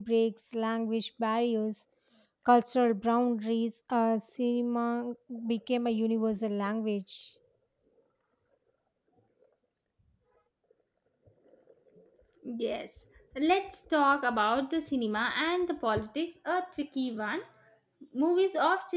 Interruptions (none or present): none